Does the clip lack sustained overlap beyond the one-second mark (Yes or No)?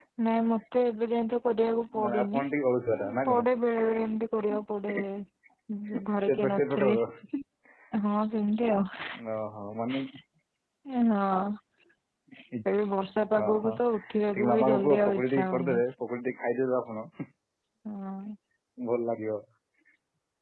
No